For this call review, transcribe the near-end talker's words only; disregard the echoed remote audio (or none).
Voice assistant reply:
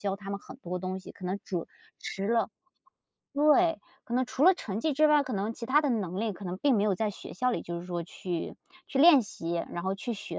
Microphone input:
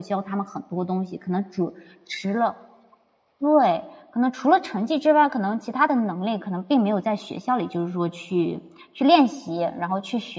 none